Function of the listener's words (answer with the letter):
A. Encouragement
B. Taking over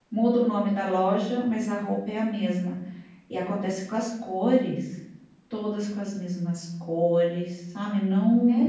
B